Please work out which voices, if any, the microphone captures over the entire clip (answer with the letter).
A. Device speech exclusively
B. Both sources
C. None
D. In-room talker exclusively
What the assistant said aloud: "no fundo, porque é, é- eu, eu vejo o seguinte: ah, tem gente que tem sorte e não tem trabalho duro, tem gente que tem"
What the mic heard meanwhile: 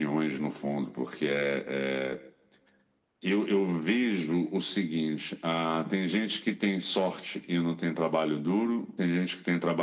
A